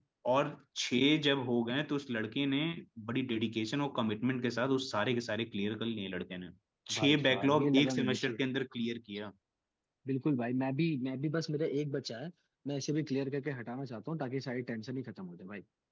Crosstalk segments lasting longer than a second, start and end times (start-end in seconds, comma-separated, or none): 7.0-8.4